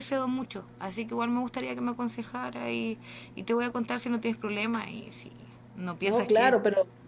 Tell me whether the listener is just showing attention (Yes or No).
No